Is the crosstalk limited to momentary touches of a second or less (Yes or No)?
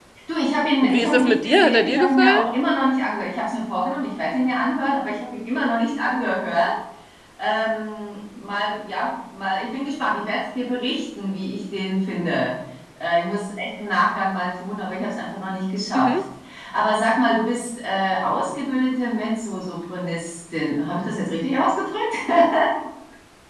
No